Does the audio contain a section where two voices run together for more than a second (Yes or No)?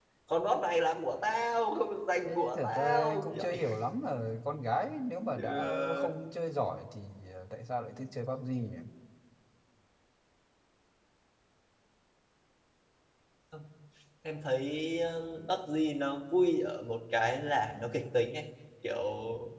Yes